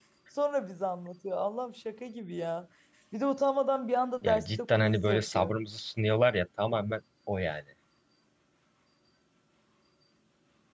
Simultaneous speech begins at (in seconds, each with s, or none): 4.2 s